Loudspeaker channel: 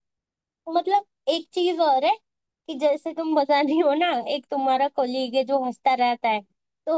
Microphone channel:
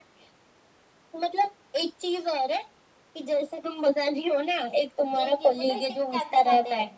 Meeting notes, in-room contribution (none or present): present